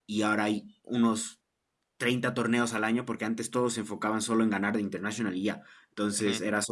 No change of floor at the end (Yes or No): Yes